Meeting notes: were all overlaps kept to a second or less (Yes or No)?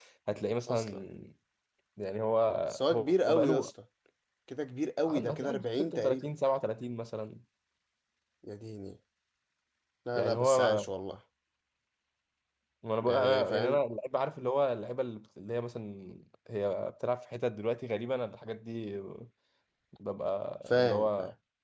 No